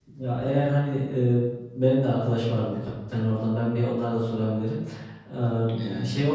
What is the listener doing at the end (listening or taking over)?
listening